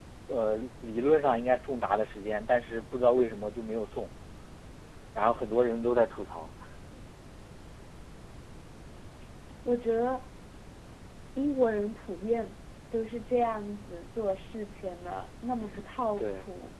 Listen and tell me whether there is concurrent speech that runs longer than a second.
No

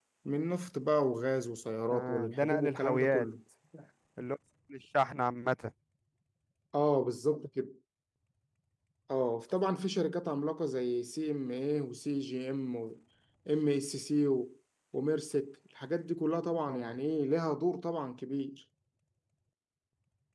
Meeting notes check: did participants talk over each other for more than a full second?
Yes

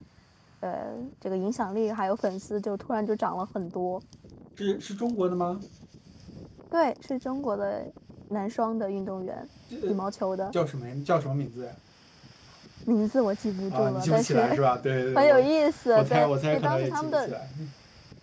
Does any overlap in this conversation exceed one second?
Yes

